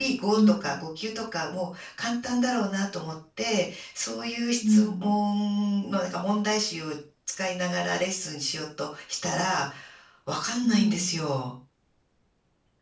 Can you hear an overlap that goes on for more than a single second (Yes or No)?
No